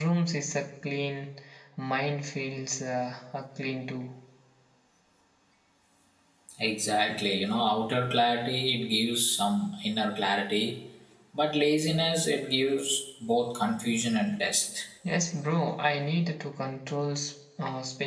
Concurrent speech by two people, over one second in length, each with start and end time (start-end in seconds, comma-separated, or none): none